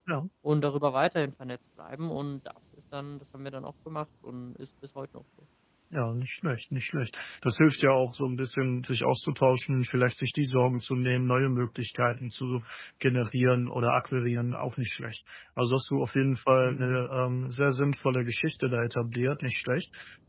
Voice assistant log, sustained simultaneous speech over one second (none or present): none